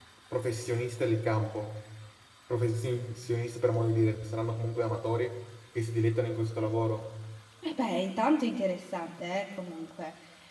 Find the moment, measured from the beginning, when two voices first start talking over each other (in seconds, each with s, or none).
none